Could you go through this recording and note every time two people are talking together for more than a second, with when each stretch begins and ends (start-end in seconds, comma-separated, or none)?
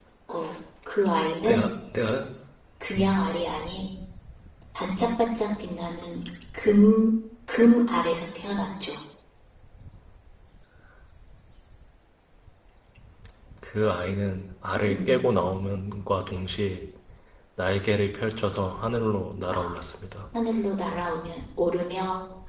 none